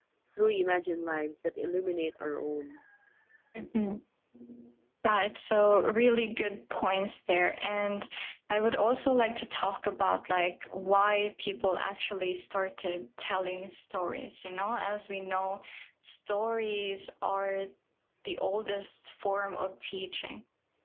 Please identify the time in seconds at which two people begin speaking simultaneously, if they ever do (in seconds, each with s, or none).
none